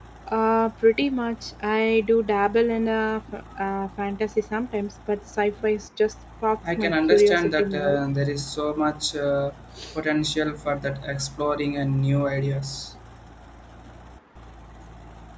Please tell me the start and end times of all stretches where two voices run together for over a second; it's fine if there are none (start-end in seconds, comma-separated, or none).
6.8-8.0